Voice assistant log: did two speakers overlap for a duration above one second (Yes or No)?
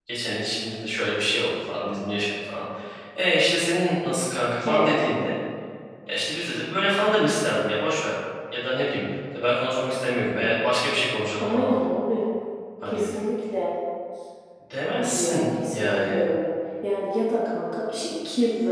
Yes